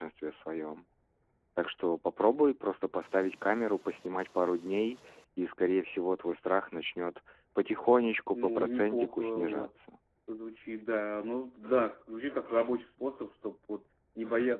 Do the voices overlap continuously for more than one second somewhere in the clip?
Yes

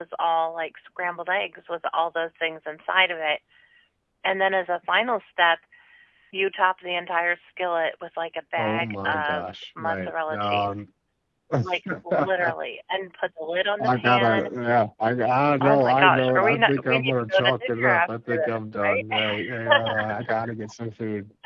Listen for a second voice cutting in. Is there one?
Yes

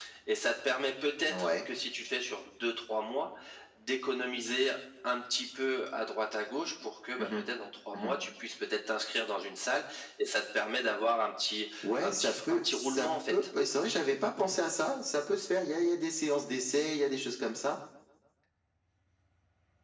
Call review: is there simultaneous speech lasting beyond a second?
Yes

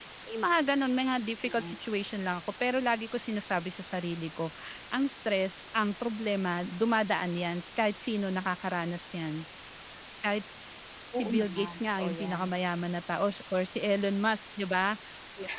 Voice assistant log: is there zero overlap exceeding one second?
No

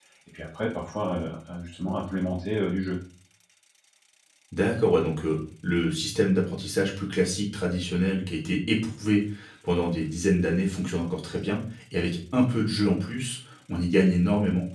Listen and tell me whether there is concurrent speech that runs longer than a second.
No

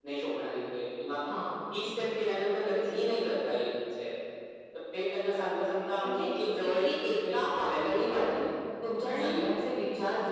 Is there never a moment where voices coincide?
No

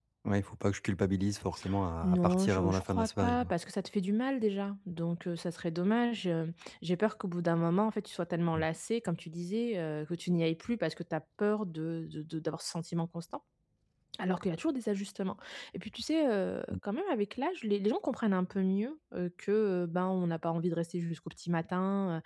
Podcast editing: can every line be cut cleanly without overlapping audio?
No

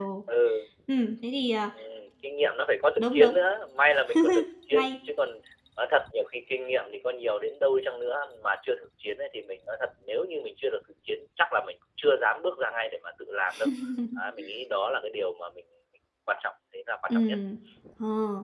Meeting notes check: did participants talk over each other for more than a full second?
No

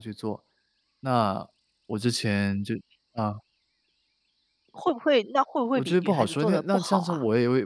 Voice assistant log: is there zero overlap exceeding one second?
No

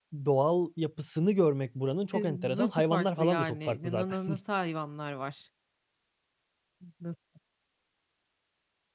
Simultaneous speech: Yes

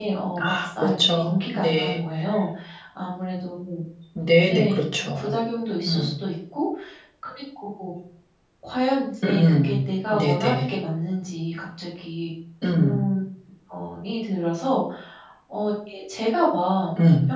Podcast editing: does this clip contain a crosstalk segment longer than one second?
Yes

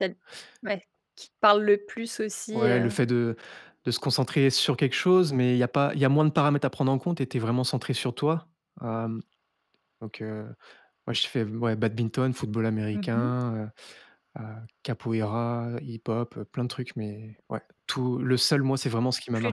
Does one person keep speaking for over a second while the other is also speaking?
No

